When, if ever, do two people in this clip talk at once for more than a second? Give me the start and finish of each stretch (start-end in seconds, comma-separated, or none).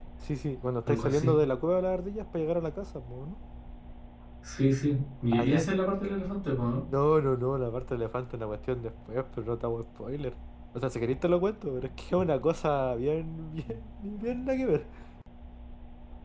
none